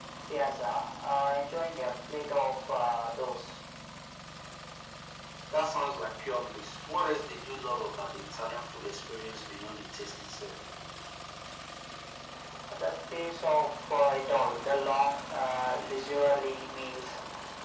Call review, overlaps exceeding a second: none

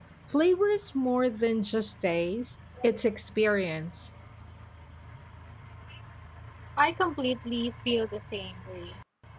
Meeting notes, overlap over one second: none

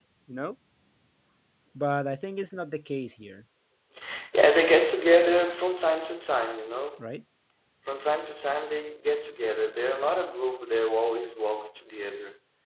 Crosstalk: none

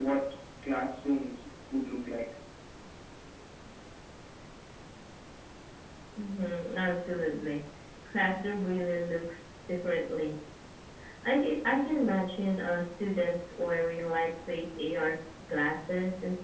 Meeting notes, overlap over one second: none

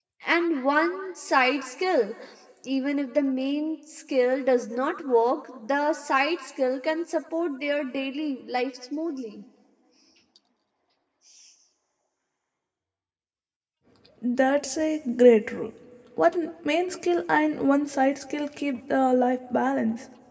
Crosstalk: none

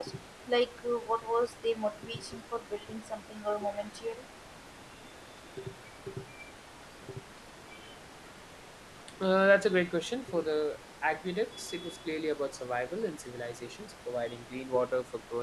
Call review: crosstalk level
none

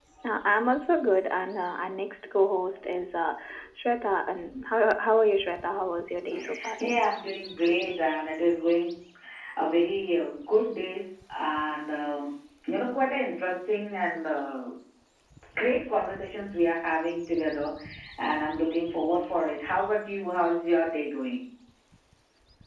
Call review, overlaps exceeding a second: none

